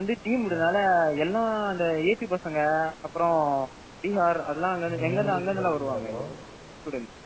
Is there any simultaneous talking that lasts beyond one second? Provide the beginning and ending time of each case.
4.8-6.2

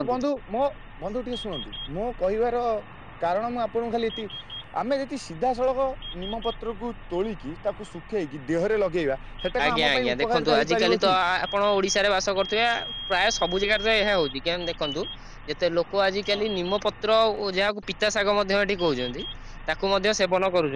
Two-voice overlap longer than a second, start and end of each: 9.6-11.1

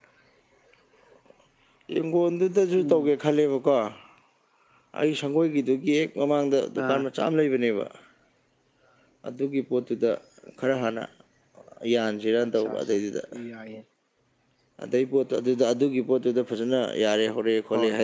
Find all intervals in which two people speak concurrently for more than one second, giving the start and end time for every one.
none

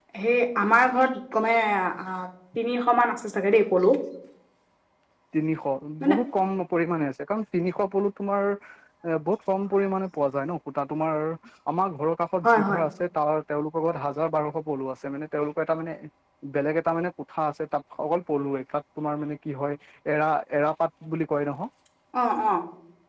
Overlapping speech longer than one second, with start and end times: none

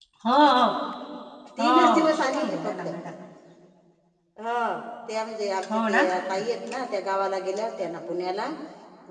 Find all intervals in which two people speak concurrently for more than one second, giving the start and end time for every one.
1.6-2.9

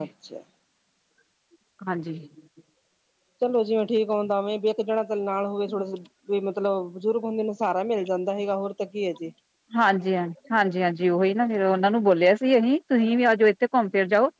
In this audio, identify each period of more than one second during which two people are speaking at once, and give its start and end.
none

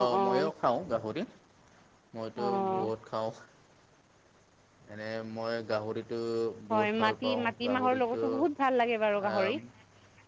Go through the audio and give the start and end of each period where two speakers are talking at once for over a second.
6.7-8.2

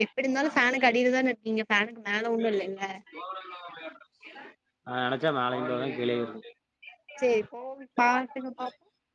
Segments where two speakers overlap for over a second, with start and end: none

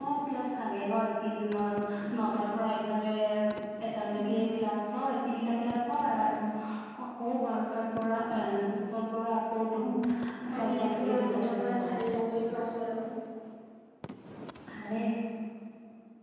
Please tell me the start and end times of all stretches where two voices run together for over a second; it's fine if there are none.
10.5-11.9

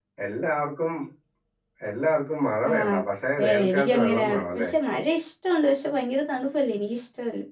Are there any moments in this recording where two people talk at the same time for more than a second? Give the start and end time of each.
3.4-4.7

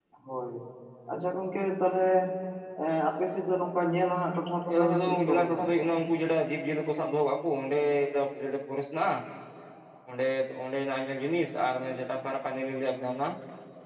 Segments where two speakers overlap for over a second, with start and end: 4.7-5.9

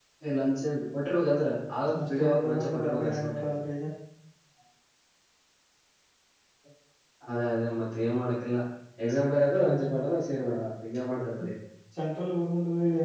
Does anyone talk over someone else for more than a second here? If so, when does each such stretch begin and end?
2.0-3.5

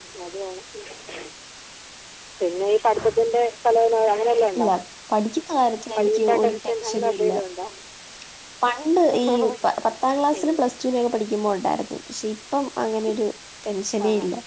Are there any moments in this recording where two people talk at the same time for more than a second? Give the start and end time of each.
6.0-7.3

